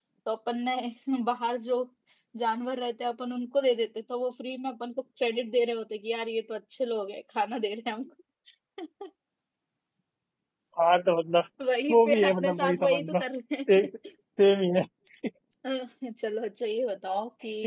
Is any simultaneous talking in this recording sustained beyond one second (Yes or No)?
Yes